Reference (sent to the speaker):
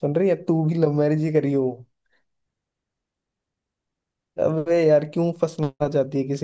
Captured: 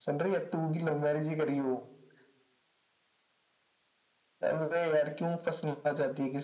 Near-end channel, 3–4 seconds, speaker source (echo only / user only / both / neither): neither